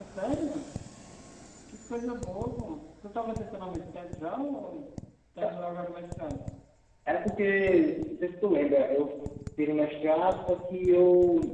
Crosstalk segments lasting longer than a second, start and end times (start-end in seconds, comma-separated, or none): none